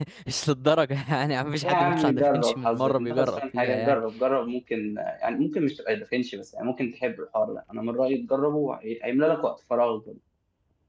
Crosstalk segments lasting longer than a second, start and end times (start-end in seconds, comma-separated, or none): 1.6-4.0